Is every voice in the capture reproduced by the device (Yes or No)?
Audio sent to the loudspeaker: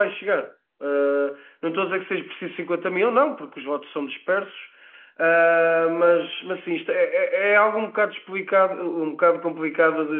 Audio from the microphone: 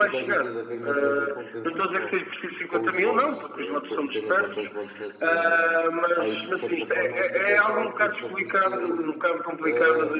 No